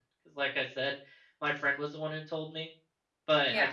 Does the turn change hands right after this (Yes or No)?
No